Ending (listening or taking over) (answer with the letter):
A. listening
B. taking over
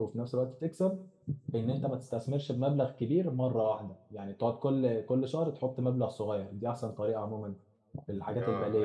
B